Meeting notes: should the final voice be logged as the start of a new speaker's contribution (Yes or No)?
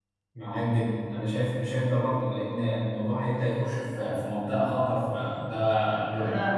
Yes